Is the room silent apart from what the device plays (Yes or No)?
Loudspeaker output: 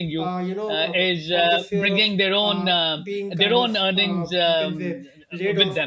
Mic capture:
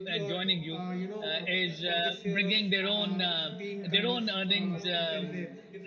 No